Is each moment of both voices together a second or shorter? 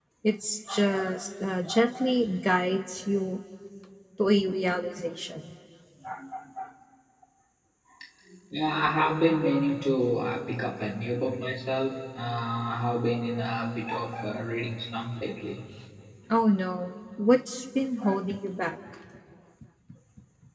Yes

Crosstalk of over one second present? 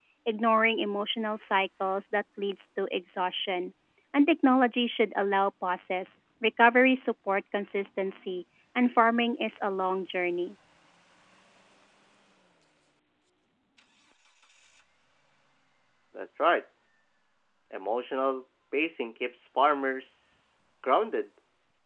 No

